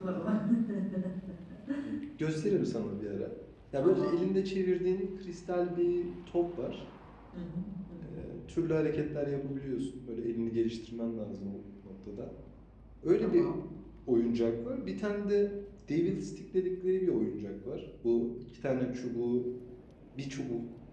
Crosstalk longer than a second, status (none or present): none